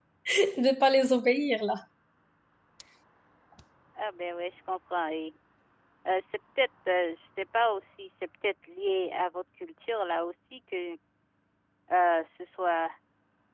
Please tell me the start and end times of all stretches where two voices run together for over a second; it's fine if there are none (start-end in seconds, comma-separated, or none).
none